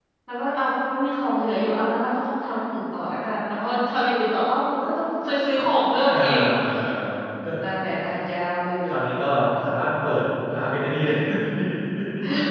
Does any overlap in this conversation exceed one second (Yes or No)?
No